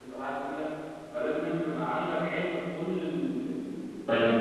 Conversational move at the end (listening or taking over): taking over